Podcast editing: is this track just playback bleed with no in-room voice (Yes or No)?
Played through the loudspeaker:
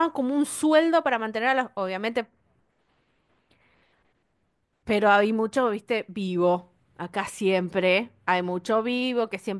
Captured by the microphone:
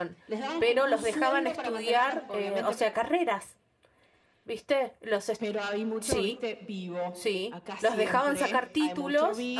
No